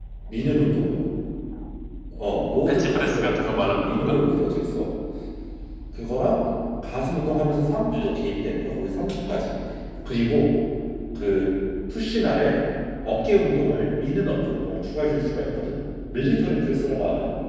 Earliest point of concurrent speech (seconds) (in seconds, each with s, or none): 2.7 s